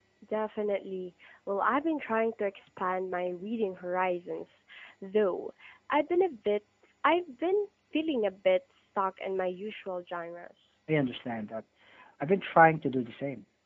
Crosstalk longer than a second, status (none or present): none